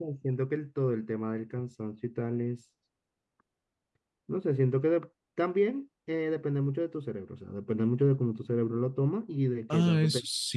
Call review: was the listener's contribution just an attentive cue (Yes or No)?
No